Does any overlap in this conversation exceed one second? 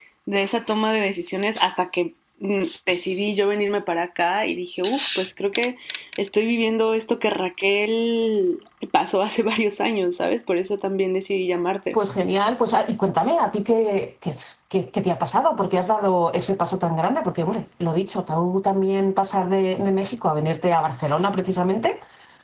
No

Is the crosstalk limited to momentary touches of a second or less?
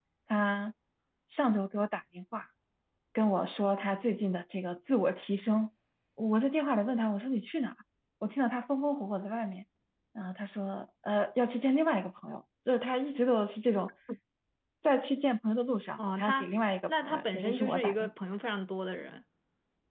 No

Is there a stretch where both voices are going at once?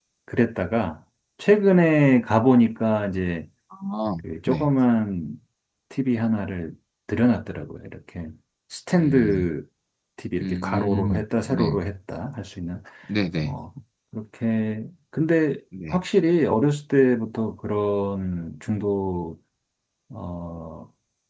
Yes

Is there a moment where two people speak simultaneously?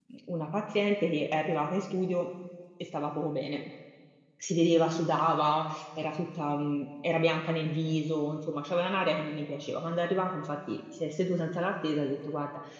No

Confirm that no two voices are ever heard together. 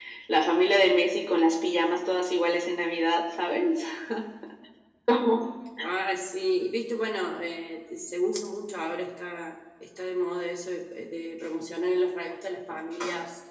Yes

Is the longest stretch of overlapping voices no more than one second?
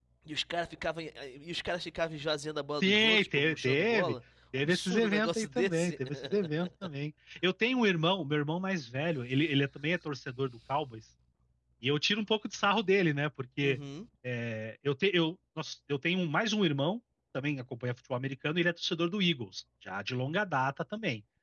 No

